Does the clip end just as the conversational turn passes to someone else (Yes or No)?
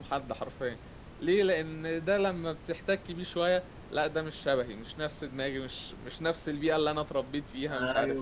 Yes